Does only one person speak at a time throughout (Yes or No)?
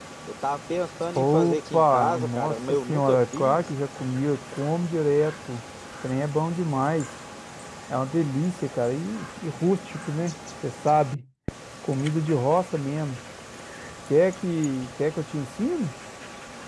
No